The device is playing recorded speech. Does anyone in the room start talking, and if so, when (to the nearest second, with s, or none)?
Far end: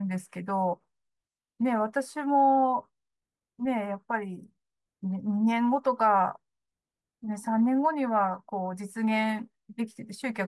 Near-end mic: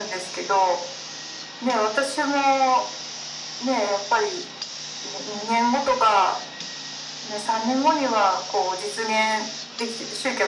none